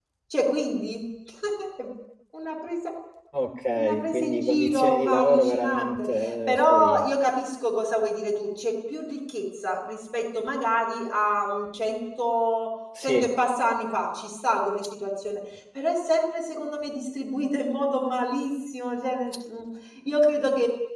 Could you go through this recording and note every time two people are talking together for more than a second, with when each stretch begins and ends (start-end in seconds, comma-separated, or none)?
3.8-7.0